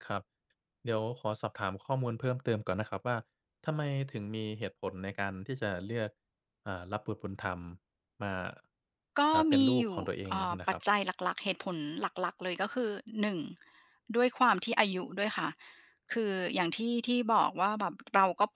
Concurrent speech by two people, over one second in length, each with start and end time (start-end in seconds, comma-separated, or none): 9.3-10.6